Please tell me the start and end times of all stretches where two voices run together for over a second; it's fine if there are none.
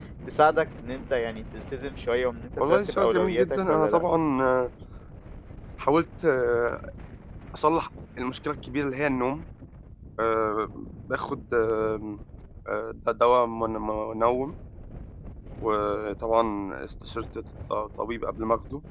2.7-4.0

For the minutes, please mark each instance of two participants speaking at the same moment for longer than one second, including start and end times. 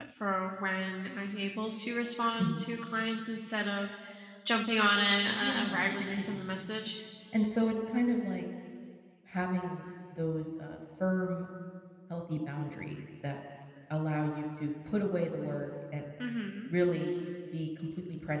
5.4-6.7

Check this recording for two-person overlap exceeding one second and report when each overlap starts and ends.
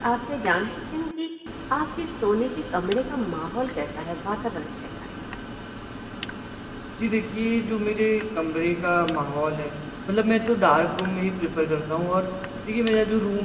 none

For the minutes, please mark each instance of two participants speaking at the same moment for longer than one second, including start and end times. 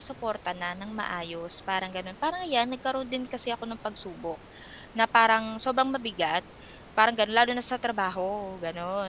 none

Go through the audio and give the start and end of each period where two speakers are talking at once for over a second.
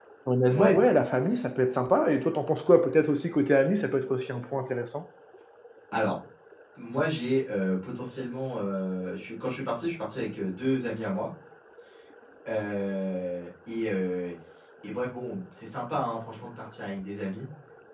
none

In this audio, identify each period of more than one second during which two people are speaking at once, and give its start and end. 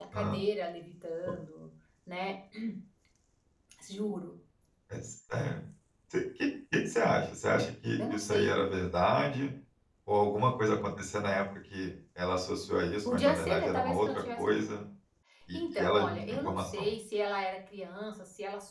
13.0-14.7, 15.5-16.9

